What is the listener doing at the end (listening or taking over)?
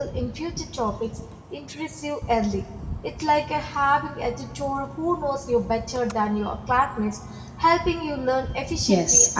taking over